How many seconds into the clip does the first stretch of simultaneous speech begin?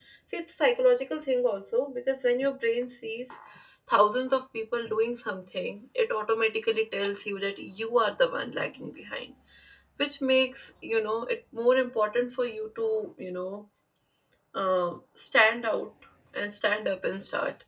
none

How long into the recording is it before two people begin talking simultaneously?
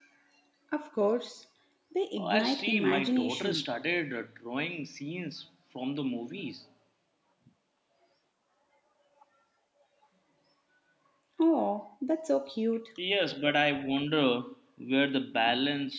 2.2 s

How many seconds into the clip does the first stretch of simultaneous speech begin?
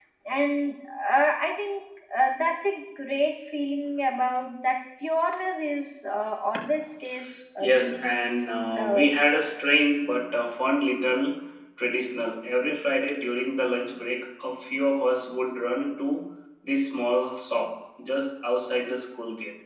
7.6 s

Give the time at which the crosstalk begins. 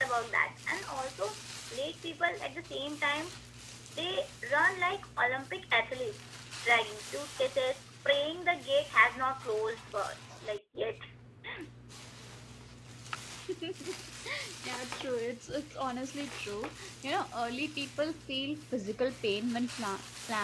none

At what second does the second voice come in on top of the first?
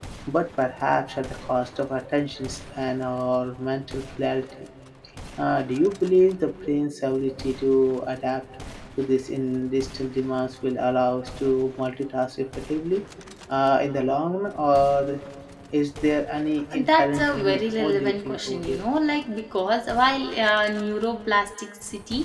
16.7 s

